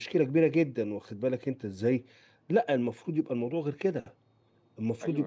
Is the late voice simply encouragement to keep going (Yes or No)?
Yes